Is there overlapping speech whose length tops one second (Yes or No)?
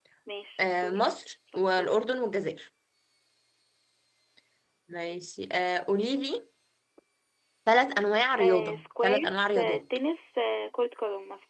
Yes